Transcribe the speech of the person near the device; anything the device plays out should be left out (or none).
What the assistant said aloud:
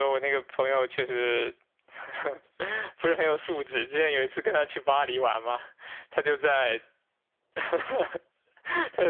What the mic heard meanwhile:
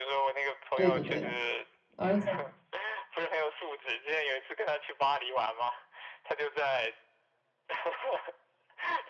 对的，对的。而且